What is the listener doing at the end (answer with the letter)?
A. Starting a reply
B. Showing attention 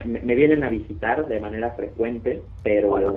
A